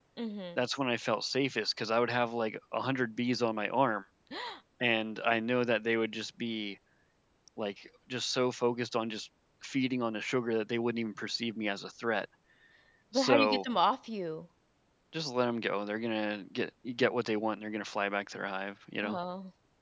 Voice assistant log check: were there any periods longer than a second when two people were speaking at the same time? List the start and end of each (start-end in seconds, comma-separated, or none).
none